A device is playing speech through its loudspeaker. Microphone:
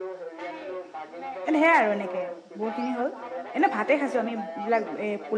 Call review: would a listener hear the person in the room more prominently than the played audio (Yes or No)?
Yes